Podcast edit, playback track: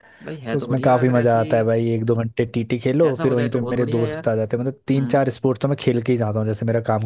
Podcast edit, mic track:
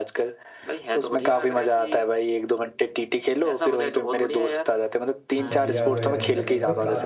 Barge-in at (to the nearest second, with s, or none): 5 s